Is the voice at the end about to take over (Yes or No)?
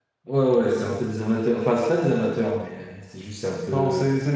Yes